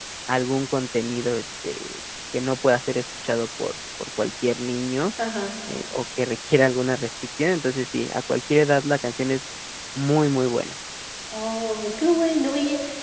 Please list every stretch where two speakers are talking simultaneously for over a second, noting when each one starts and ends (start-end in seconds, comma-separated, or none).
none